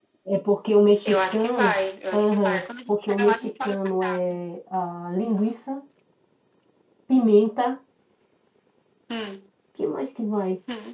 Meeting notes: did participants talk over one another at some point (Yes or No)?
Yes